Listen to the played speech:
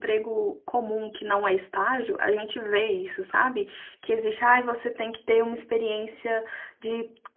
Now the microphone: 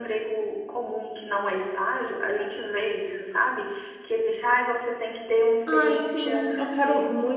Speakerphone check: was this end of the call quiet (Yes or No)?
No